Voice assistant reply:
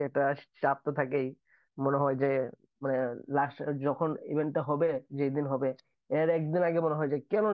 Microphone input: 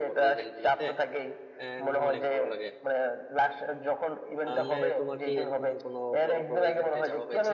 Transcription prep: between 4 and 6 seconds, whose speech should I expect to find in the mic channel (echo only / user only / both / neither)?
both